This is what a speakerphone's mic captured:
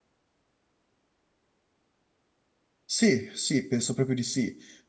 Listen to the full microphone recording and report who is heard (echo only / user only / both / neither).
user only